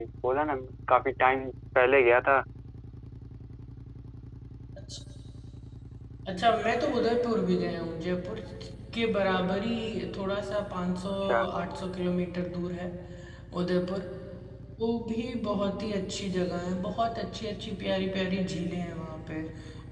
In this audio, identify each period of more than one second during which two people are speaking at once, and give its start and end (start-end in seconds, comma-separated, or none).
none